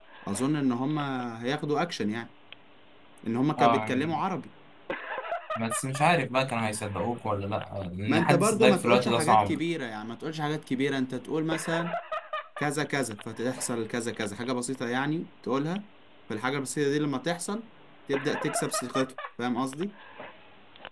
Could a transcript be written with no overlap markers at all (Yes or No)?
No